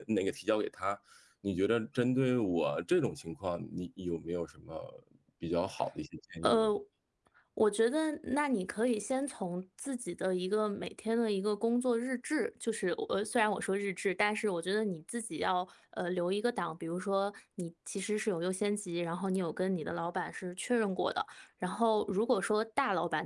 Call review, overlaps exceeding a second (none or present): none